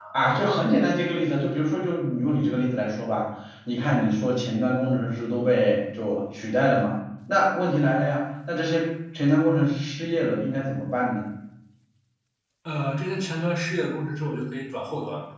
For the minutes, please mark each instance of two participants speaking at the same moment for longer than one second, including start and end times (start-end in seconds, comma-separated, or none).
none